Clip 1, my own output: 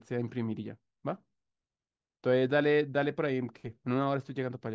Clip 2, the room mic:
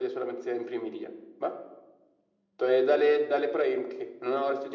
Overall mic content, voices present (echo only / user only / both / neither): echo only